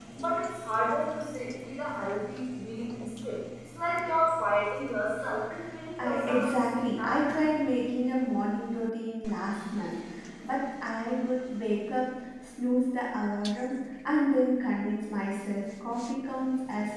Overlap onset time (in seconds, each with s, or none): 6.0 s